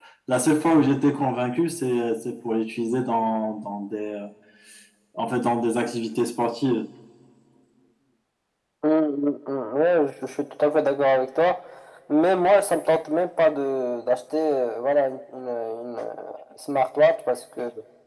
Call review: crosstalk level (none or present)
none